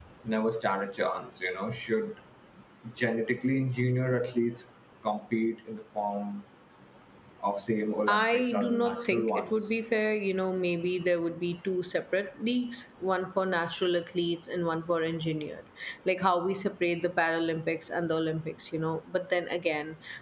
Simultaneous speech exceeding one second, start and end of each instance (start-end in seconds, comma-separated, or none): 8.1-9.8